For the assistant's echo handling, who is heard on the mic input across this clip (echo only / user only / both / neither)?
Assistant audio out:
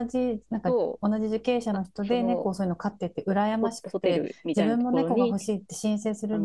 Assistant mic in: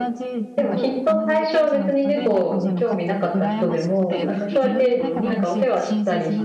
both